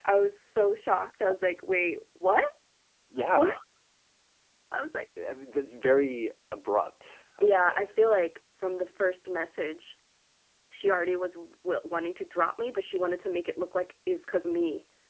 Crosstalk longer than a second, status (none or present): none